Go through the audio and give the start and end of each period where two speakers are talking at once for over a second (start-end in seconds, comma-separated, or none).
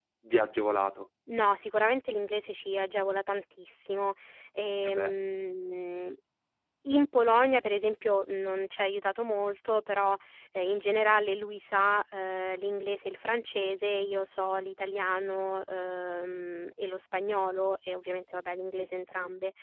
none